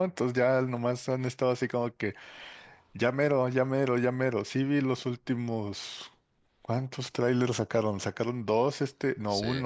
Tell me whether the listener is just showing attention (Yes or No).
Yes